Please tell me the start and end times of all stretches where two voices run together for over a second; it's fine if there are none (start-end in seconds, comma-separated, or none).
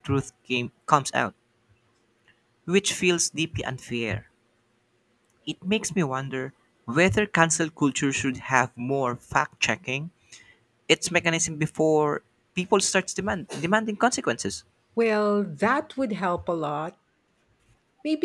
none